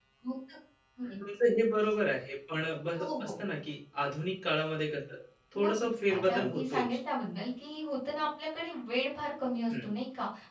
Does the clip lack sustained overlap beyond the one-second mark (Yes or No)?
No